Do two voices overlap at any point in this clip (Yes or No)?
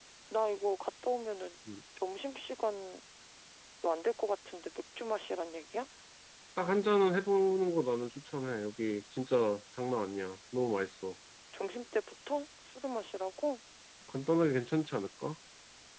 No